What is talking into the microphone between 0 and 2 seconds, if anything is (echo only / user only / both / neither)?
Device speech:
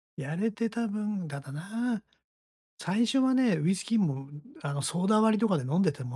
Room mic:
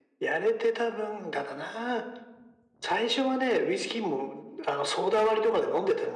echo only